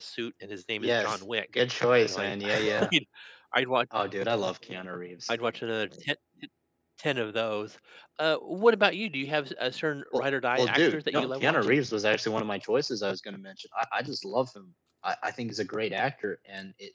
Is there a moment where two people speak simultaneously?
Yes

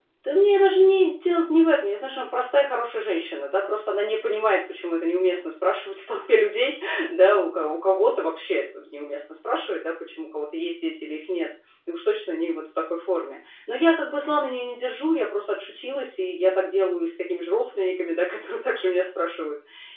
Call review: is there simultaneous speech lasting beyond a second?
No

